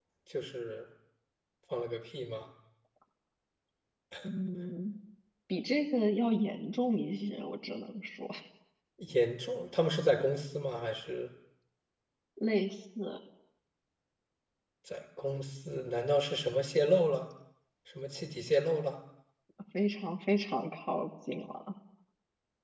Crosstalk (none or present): none